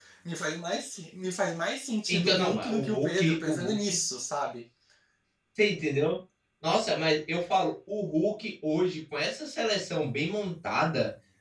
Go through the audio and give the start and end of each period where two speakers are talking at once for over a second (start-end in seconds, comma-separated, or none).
2.1-3.7